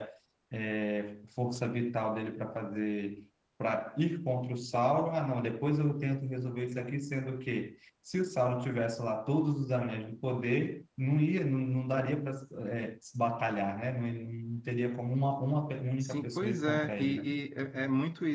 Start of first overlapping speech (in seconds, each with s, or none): 16.0 s